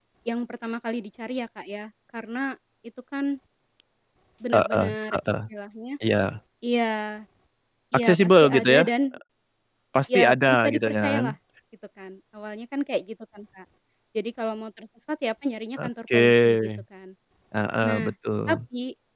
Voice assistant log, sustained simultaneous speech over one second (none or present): present